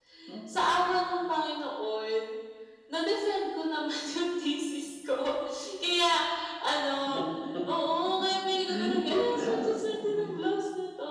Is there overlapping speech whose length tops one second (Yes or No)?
Yes